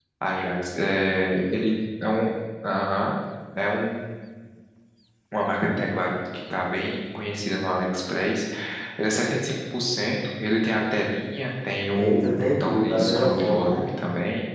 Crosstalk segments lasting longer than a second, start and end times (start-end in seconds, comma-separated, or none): 11.9-13.8